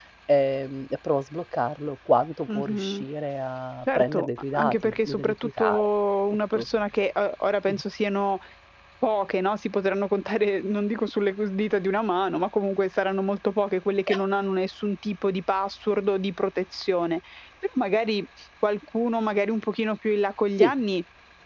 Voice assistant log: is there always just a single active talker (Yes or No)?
No